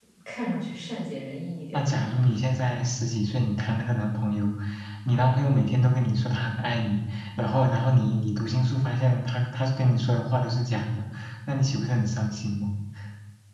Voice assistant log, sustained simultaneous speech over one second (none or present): none